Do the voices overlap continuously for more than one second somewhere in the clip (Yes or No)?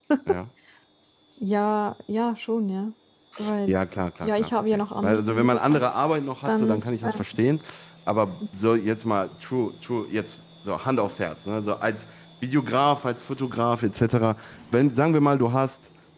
Yes